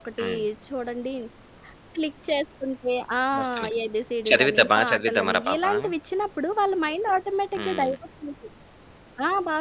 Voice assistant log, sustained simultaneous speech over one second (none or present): present